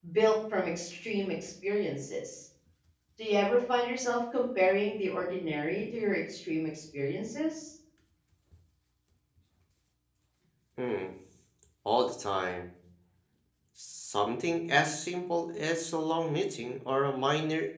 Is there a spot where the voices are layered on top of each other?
No

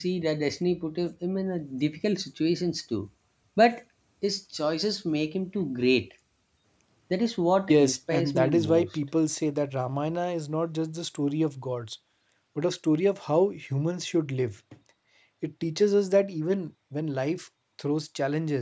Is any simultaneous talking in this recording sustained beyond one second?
Yes, from 7.7 s

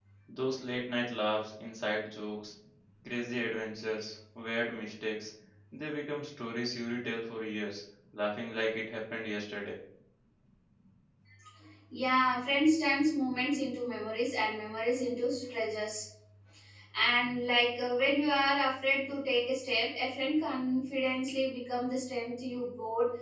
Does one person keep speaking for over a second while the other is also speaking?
No

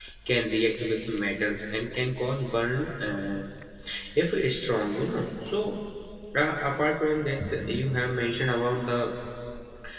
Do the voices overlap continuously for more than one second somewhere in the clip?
No

